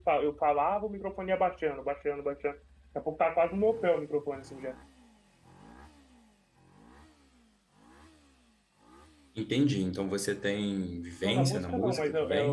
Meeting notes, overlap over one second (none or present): present